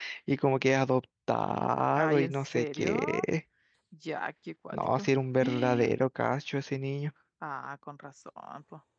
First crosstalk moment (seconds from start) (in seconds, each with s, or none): 1.9 s